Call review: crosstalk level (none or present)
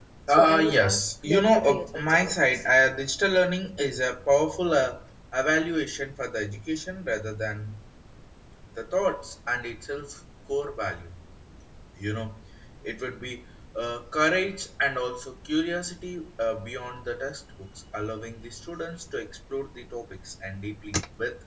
present